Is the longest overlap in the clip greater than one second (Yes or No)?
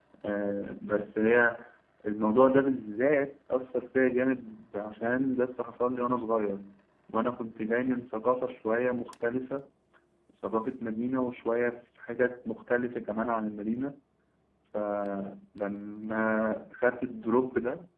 No